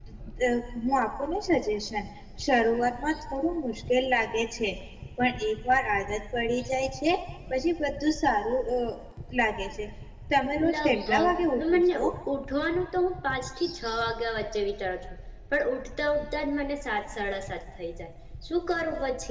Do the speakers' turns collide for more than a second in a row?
Yes, from 10.6 s

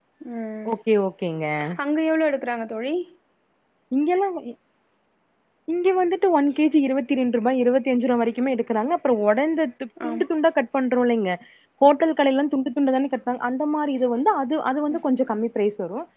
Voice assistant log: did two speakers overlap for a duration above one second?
No

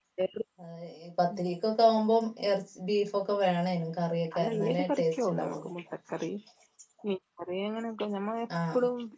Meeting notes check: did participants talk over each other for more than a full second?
Yes, from 4.4 s

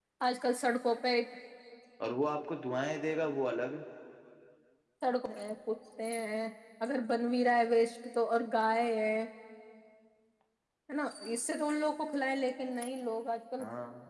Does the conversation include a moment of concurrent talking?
No

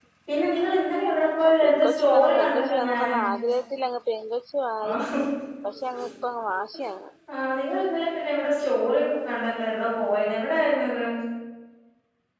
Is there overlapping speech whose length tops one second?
Yes, from 1.4 s

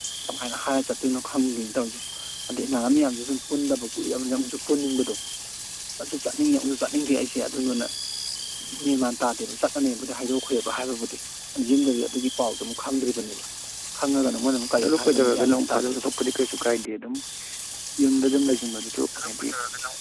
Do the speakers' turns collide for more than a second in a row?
Yes, from 14.8 s

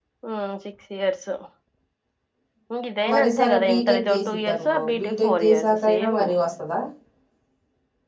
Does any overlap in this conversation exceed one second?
Yes, from 3.1 s

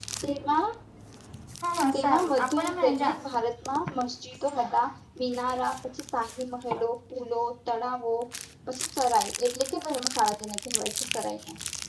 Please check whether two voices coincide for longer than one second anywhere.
Yes, from 1.9 s

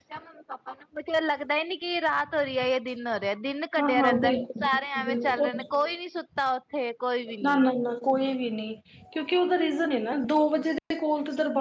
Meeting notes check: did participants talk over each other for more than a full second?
Yes, from 3.8 s

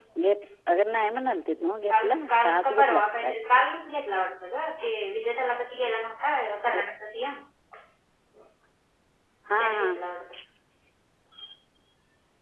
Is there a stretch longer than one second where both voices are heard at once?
Yes, from 2.0 s

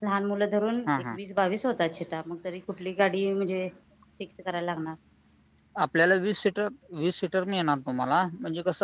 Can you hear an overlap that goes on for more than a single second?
No

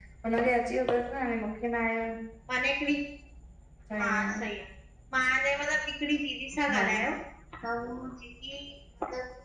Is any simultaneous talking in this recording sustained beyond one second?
No

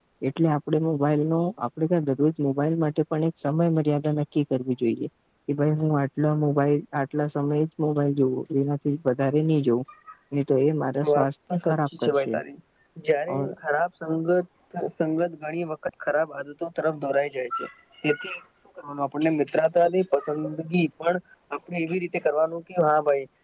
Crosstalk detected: Yes, from 11.1 s

